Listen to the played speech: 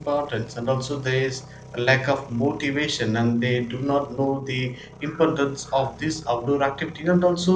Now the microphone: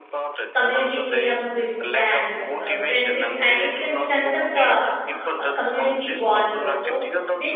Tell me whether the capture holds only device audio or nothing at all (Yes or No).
No